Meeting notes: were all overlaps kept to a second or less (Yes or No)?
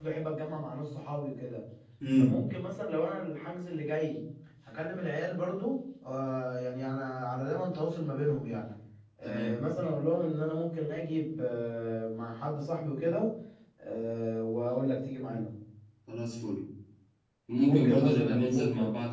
No